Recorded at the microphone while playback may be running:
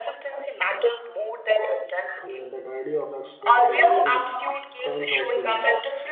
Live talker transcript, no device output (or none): Yeah, that idea of exposure really stands out to me.